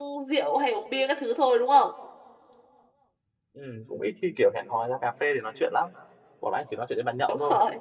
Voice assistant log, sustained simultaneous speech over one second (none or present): none